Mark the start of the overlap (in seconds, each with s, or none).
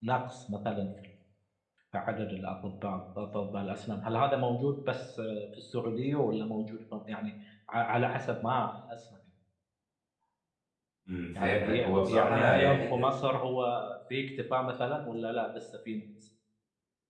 11.4 s